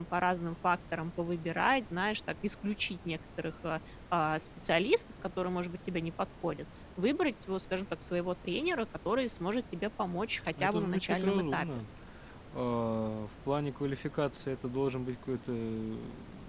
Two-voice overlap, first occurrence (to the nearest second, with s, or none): 11 s